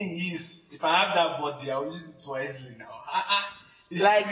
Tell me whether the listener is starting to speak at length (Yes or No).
No